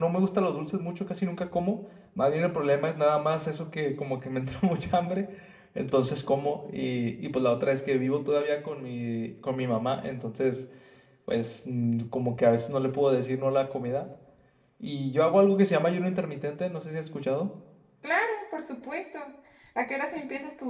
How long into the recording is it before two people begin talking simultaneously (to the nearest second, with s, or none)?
none